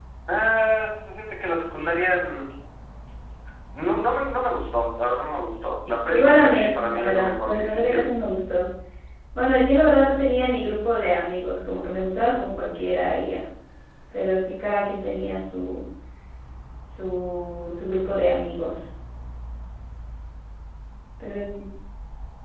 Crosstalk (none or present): present